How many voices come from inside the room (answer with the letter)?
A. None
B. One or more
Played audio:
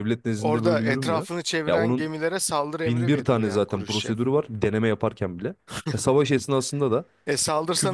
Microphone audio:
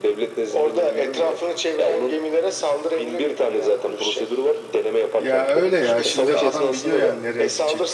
B